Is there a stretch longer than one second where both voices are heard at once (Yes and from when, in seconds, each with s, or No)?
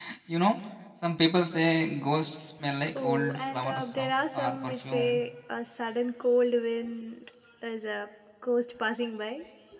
Yes, from 3.0 s